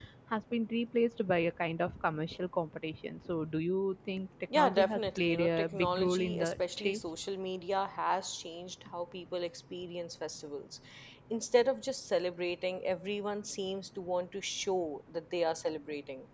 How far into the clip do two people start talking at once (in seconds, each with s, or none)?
4.5 s